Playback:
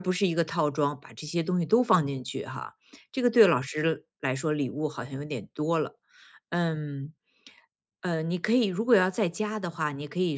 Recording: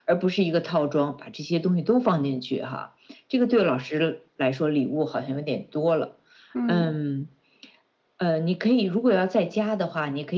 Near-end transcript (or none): 嗯。